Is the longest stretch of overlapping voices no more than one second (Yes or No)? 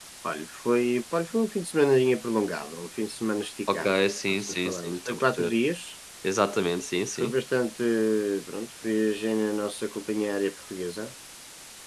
No